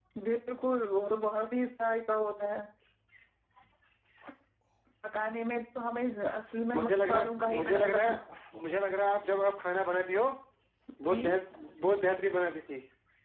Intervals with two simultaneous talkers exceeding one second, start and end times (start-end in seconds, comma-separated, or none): 6.8-8.2